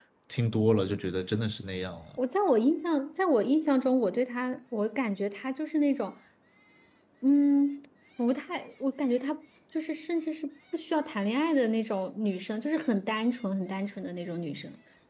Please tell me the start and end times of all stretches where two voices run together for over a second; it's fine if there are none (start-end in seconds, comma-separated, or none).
none